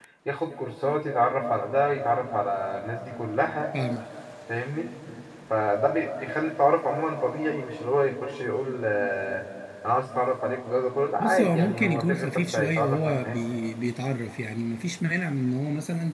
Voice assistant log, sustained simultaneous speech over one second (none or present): present